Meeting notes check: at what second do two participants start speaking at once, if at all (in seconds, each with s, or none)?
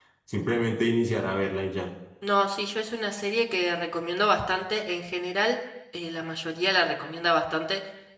none